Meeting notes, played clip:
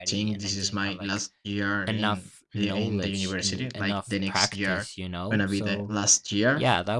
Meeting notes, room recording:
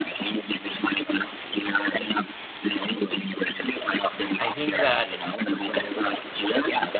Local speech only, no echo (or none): I think that,